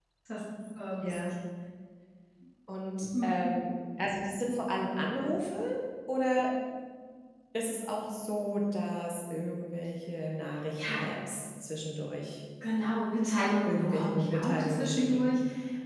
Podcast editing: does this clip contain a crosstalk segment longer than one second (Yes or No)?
Yes